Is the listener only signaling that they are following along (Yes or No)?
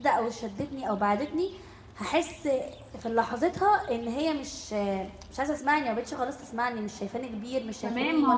No